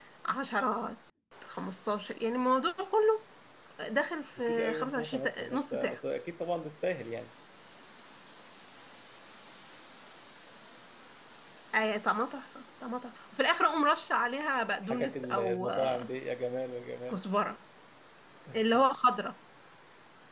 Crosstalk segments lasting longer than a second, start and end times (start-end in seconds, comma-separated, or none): 4.5-6.0, 14.8-16.1